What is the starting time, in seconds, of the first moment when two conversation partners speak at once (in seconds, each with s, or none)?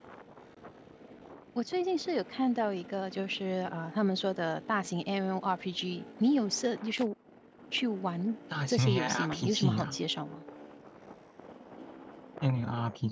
8.5 s